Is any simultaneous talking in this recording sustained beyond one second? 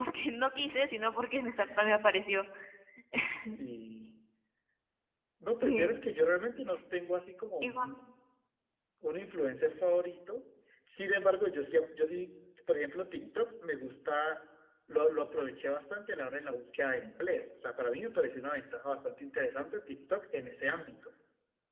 No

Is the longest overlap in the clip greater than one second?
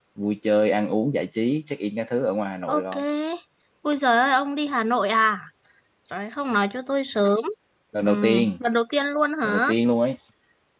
No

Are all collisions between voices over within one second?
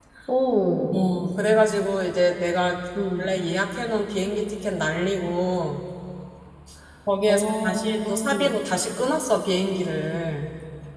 No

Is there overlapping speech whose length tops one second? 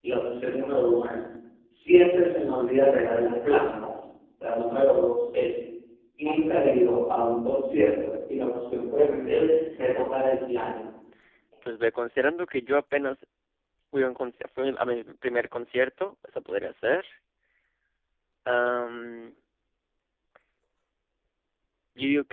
Yes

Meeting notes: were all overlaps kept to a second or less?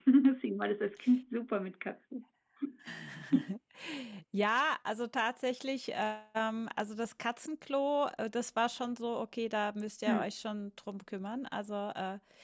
Yes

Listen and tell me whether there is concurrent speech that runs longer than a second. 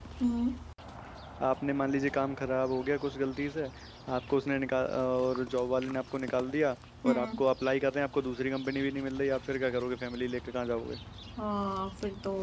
No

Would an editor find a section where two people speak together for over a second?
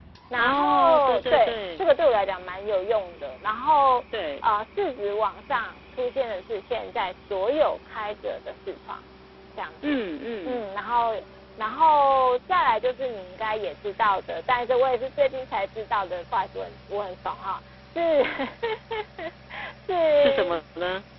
Yes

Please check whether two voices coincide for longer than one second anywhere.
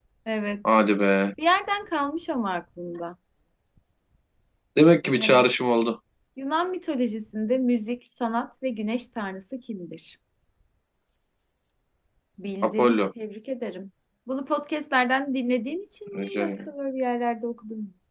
No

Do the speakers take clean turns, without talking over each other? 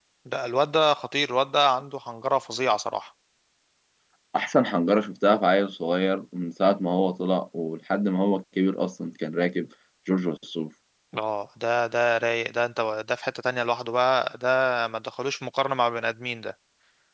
Yes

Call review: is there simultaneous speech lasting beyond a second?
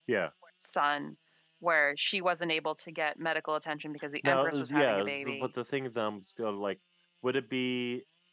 Yes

